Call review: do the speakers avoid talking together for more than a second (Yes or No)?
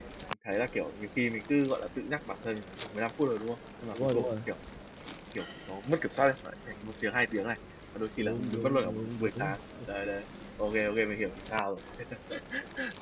No